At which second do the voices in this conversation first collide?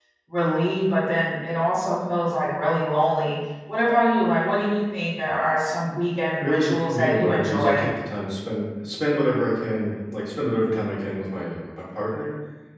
6 s

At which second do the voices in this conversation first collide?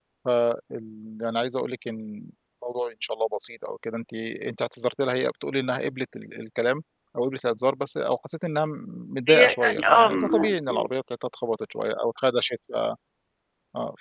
9 s

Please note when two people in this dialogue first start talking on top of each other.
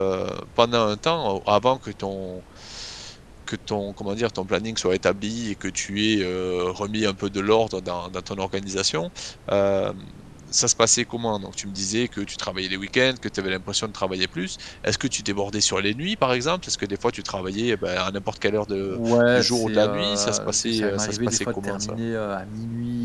19 s

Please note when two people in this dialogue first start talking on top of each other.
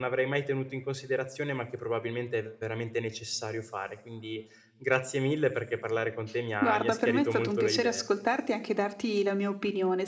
7 s

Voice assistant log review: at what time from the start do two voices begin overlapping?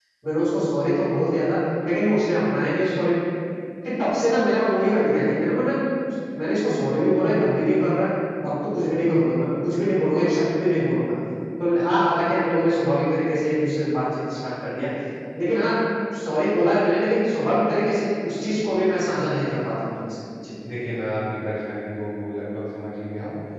none

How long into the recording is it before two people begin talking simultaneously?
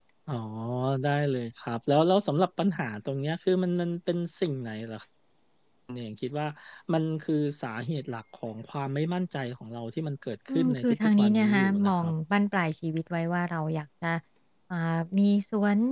10 s

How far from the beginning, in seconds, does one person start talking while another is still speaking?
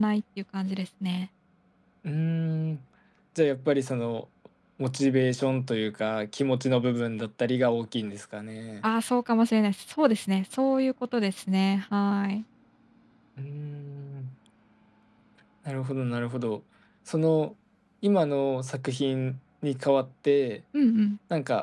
none

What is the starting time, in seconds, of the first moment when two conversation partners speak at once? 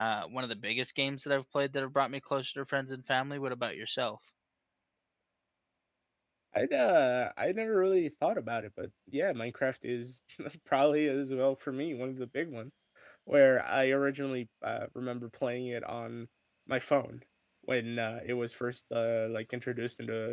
none

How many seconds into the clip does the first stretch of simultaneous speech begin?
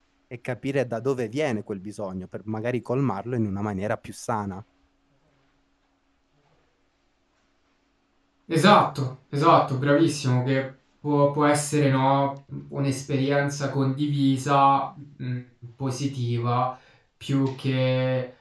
none

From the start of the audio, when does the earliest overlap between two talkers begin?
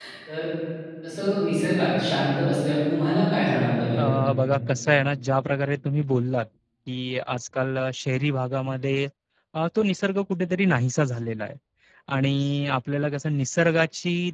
none

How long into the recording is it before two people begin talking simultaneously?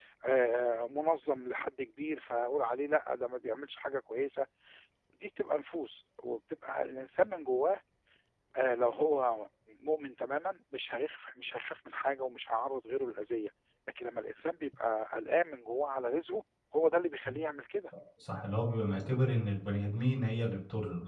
none

